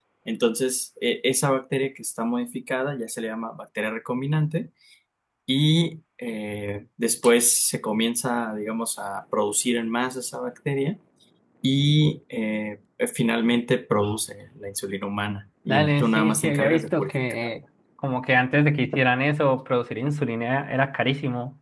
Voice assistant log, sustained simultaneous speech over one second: present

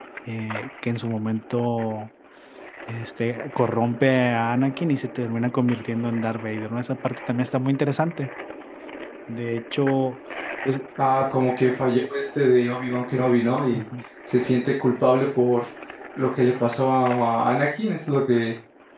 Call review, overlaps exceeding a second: none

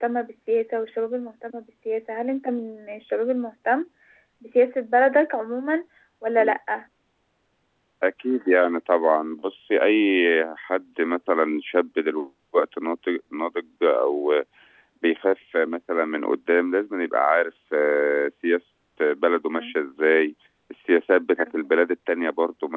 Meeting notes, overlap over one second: none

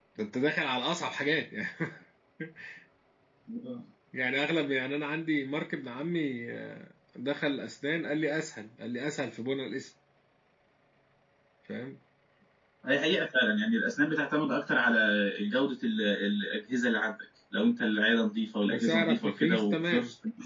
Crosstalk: present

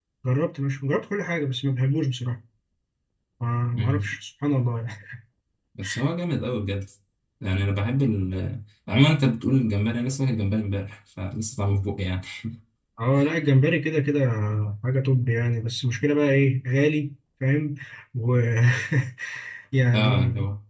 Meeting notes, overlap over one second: none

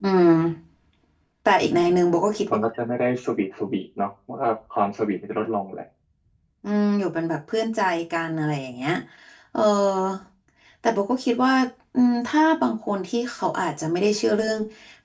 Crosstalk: none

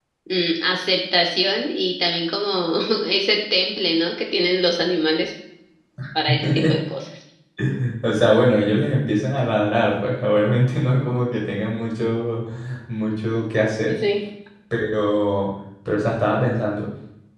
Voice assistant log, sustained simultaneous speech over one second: none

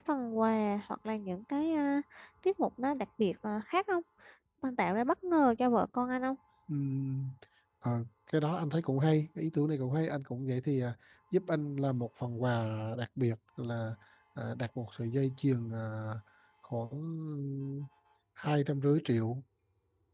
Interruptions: none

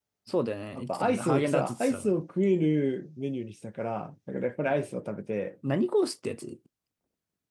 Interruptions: present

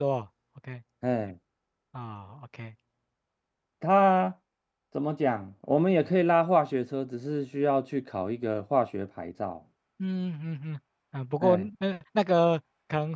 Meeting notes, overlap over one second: none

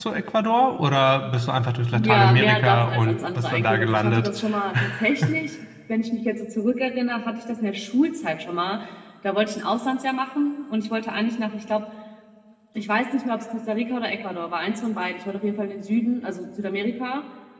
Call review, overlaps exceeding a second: present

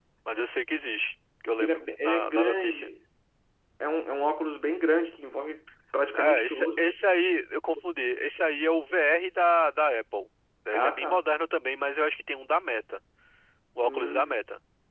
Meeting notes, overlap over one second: present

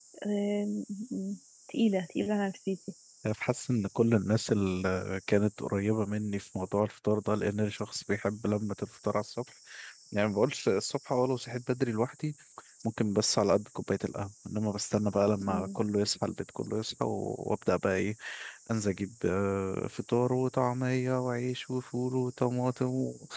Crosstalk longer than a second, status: none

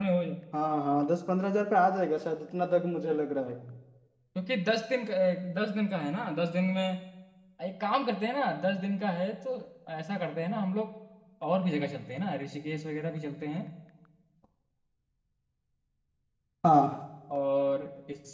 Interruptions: none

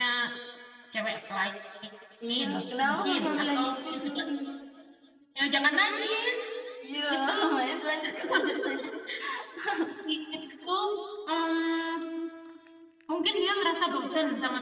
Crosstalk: present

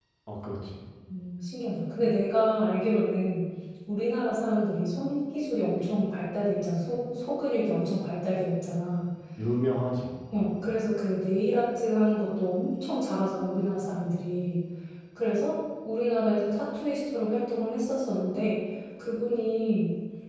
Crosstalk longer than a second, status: none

